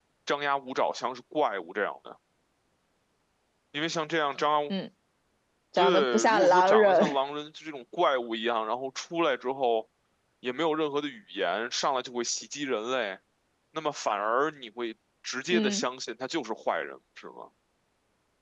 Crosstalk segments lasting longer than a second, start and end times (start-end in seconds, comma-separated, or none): 5.8-7.2